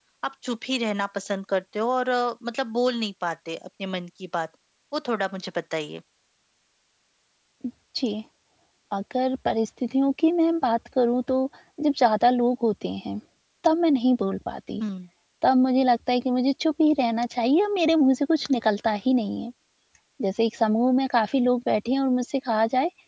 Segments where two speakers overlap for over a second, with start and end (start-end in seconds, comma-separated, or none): none